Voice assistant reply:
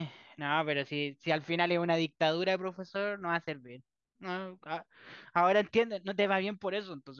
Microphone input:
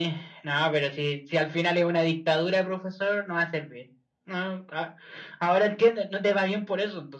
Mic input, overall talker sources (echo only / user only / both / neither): echo only